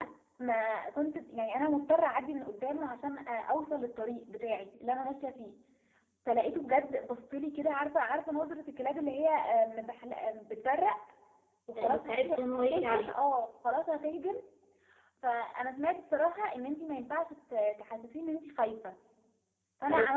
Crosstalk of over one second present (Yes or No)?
Yes